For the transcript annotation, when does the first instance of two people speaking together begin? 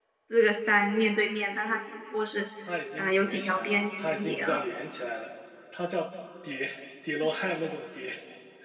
3 s

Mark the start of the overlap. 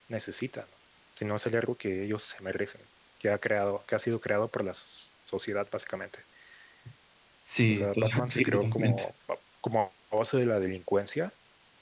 8 s

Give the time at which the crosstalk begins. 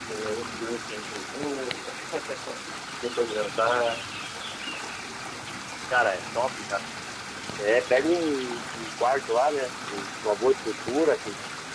none

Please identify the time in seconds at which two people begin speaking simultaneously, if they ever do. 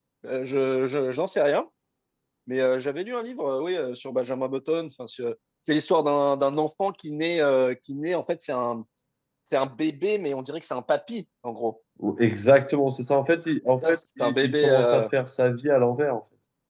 14 s

